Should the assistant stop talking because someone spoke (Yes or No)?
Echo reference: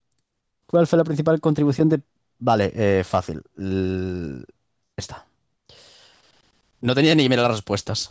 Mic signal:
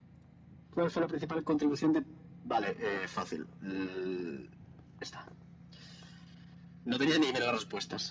No